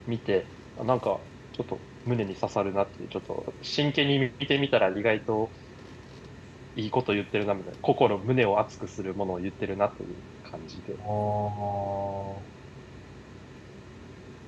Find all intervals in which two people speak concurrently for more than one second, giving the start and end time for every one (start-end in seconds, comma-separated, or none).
none